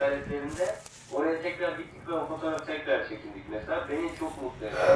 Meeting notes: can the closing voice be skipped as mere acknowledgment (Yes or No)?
No